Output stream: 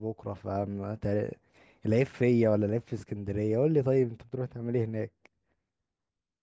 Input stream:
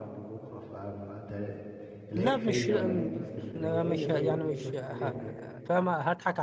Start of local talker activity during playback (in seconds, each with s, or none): 2.2 s